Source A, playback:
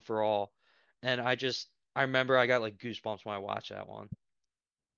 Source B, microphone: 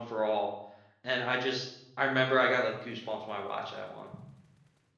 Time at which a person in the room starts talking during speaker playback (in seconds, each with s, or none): none